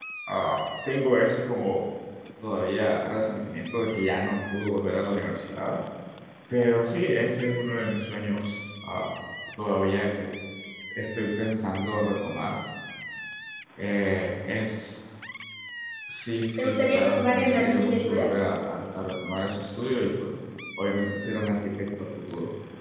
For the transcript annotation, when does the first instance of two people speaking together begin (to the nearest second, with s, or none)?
17 s